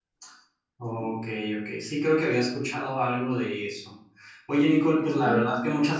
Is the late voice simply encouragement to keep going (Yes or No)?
Yes